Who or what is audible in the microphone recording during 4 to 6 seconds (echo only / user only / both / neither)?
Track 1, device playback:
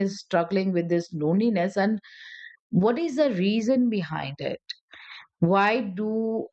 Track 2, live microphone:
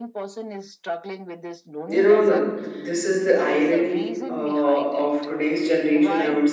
both